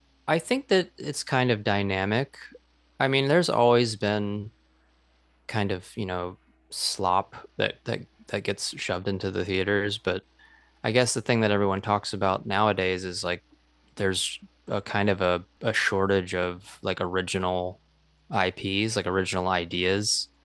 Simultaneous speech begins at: none

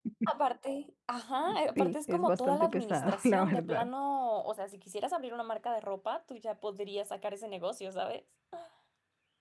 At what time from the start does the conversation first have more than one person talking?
1.8 s

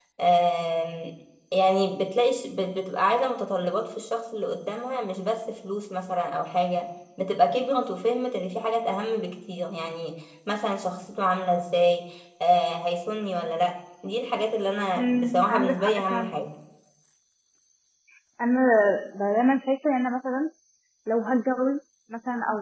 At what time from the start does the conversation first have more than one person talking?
15.0 s

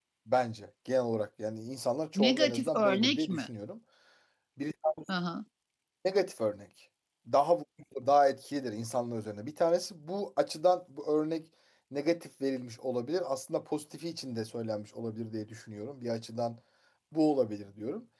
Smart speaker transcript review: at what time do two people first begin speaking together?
2.1 s

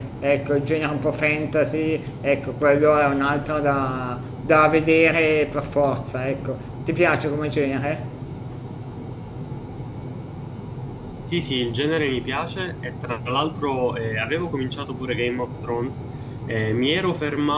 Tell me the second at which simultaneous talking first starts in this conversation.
none

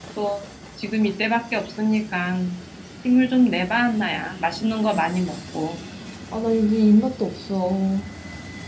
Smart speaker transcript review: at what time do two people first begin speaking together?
none

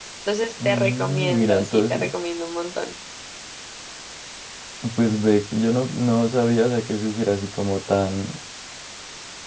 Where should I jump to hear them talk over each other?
0.6 s

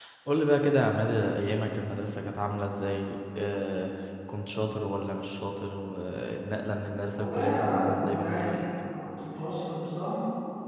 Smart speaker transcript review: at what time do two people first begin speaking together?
7.2 s

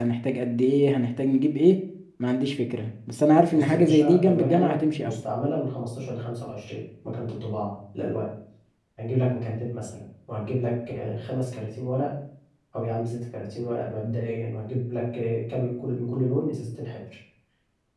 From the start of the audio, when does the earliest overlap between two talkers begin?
3.5 s

